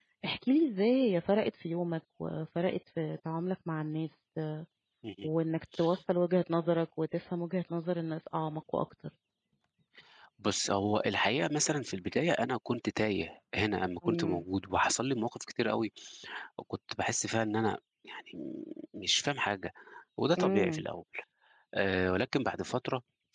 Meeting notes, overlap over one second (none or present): none